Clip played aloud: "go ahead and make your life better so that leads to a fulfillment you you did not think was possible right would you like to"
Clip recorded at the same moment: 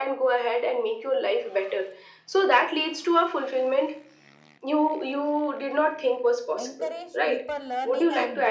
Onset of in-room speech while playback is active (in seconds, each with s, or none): 6.6 s